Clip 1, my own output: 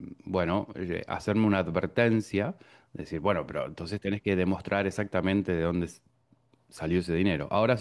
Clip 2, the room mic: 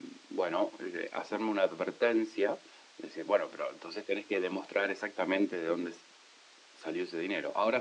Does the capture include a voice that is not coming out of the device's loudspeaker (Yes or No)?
No